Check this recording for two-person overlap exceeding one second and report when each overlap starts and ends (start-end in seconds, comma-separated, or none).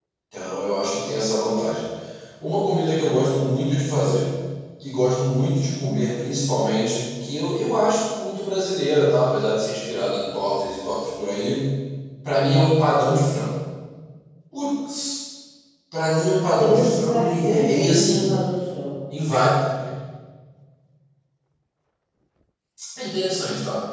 16.6-18.3